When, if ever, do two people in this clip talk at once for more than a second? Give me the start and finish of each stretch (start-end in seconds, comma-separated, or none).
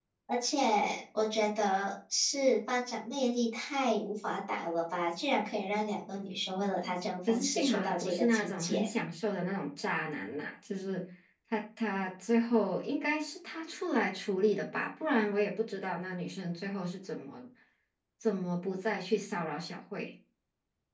7.3-8.9